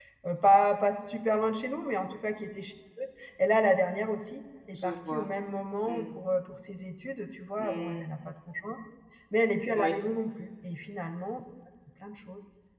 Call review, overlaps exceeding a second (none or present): none